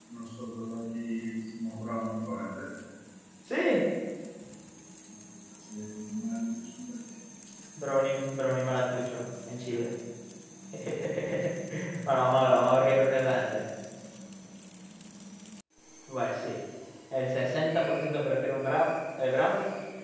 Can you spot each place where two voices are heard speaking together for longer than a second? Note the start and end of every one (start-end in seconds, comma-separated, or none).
none